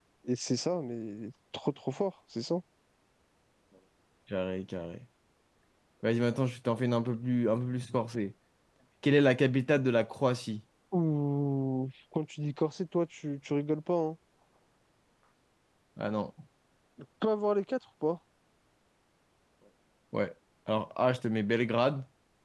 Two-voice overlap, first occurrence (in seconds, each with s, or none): none